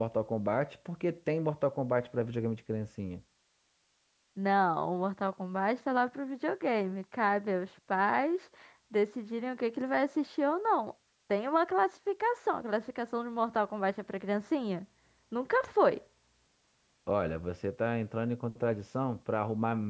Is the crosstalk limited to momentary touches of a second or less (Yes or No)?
Yes